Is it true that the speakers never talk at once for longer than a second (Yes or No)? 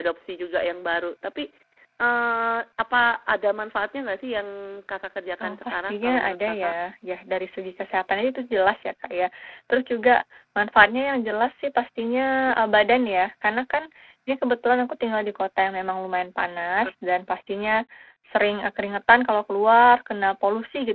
No